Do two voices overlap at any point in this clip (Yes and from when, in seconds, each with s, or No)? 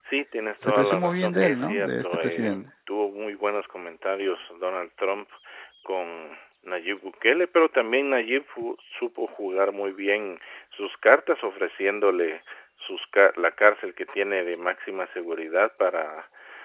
Yes, from 0.7 s